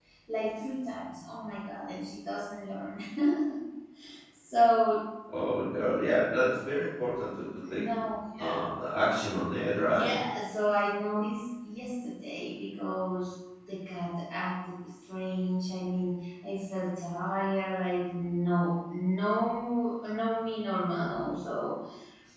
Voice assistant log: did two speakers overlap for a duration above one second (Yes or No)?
No